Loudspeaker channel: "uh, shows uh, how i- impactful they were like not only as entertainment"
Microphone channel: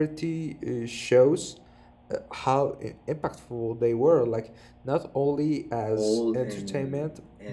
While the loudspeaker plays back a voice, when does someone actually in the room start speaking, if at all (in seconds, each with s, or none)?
5.9 s